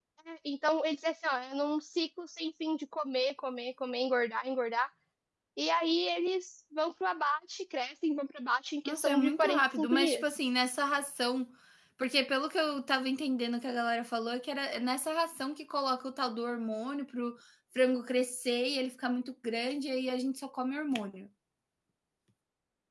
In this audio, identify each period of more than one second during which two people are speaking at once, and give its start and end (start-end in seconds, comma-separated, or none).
8.8-10.2